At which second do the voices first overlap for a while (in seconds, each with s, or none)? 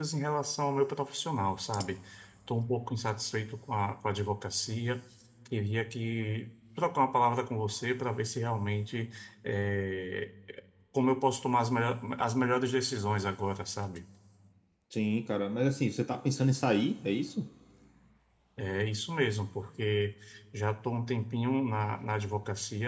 none